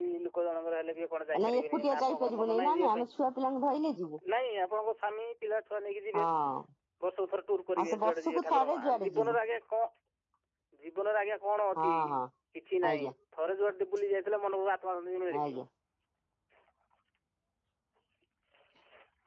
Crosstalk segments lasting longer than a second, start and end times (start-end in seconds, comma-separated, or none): 1.4-3.0, 7.8-9.3